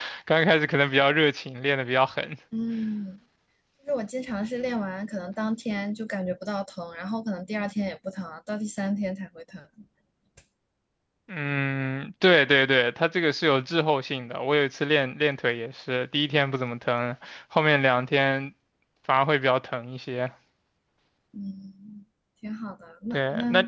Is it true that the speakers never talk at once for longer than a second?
Yes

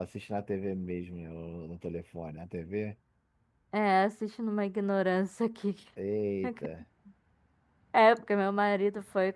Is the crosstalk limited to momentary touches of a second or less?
Yes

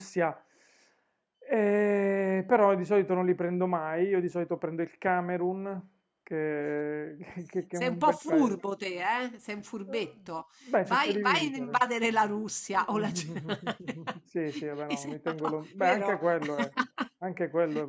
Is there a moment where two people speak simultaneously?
Yes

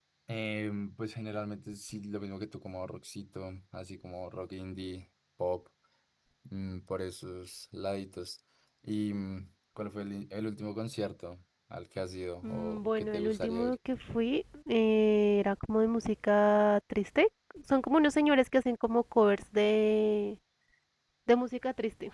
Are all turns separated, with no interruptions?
No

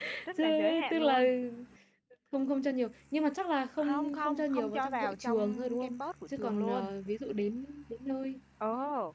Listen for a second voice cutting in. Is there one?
Yes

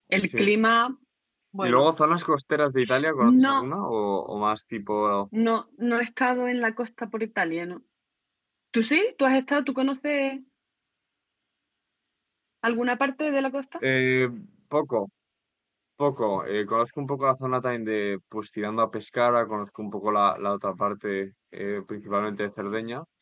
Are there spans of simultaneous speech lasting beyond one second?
No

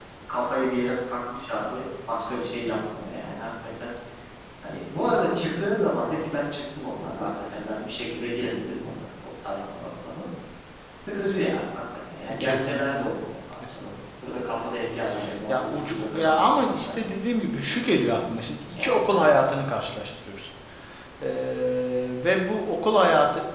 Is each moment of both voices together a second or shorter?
No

